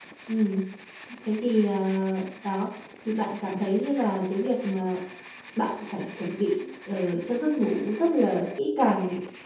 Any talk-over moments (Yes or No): No